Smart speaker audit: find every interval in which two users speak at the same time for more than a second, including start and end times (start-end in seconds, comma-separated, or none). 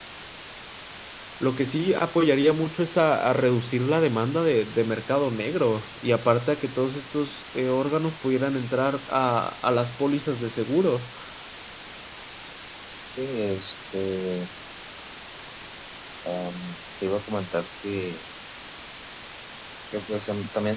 none